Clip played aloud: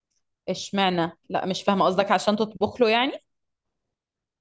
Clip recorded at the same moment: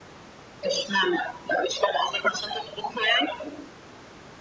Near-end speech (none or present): none